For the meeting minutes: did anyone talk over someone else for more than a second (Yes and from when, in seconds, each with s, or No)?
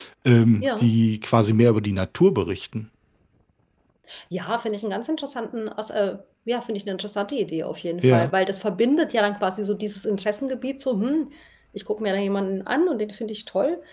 No